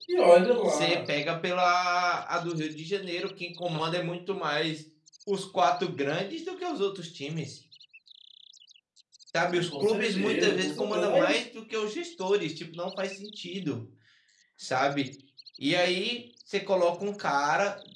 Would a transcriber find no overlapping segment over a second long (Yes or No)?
No